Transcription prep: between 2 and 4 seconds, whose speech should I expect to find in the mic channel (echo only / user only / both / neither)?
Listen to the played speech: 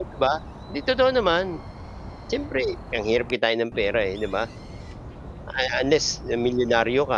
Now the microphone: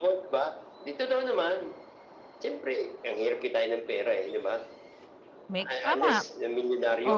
echo only